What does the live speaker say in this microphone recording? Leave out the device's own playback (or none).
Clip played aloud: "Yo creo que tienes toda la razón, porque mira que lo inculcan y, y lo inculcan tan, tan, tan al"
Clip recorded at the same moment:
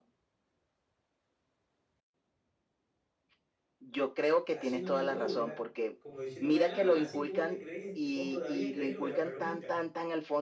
haciéndome burla, como diciéndome, ah, así que vos te creés, vos todavía creés lo de la palomita.